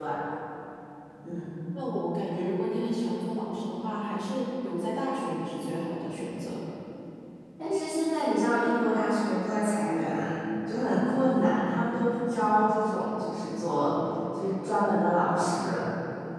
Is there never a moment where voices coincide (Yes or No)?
Yes